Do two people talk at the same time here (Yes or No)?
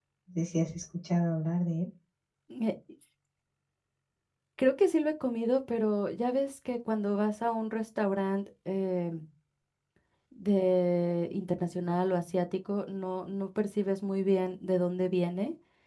No